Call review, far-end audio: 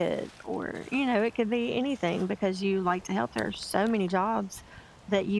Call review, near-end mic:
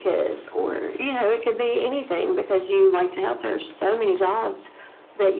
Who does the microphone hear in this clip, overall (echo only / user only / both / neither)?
echo only